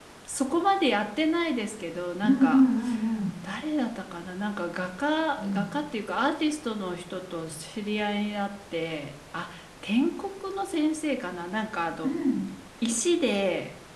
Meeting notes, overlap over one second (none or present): none